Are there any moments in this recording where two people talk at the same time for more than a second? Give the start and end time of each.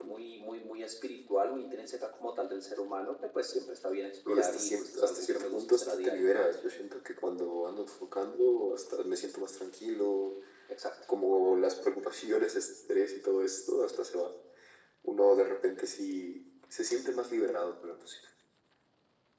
4.3-6.5

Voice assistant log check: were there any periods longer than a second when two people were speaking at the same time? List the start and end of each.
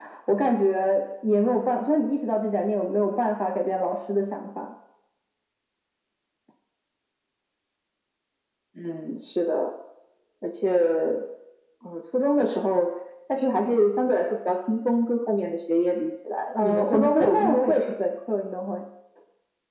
16.6-17.8

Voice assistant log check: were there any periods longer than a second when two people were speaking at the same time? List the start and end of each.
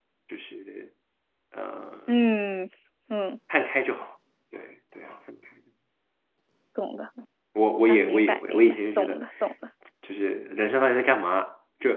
7.9-9.2

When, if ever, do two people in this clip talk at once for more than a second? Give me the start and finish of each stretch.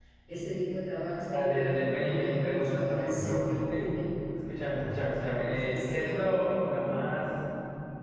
1.3-3.8, 5.3-7.0

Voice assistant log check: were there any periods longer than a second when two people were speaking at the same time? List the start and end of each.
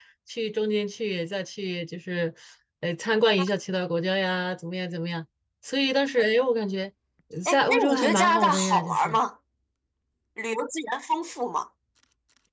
7.5-9.2

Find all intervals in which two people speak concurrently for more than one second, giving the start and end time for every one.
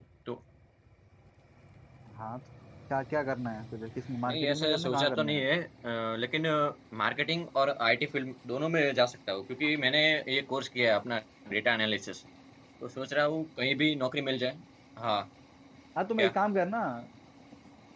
4.2-5.4

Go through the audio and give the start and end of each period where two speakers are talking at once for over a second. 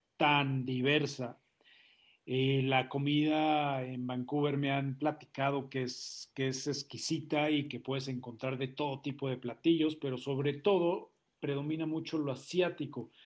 none

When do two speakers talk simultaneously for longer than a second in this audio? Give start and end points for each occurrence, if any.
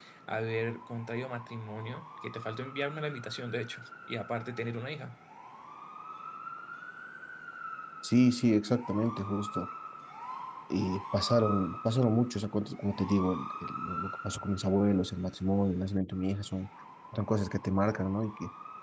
none

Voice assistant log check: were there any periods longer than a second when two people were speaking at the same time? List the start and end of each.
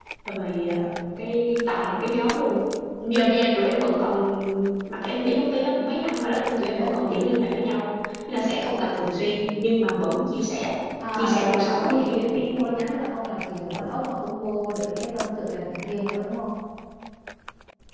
11.1-12.5

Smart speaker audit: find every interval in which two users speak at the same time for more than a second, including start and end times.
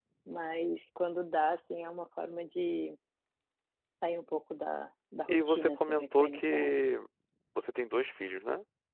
5.3-6.8

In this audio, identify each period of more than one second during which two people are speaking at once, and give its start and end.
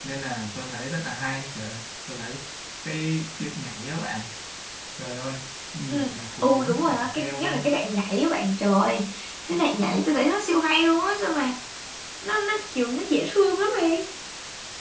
6.4-7.7

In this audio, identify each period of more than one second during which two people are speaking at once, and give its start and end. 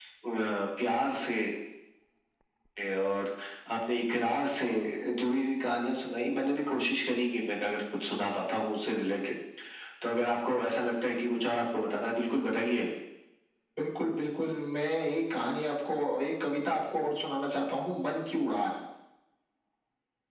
none

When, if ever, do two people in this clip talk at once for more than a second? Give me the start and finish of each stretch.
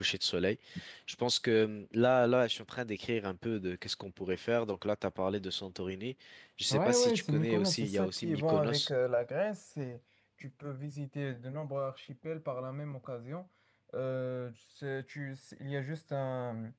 6.7-8.9

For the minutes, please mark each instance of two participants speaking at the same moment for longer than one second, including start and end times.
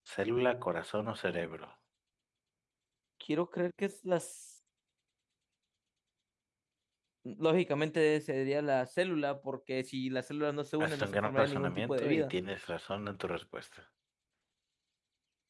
10.8-12.3

